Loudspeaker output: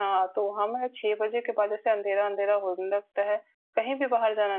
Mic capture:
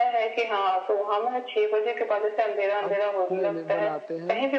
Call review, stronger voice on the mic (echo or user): echo